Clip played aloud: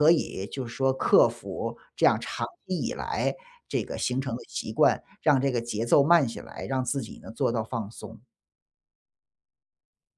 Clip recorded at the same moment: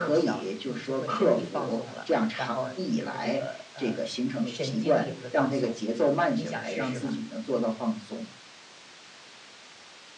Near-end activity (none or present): present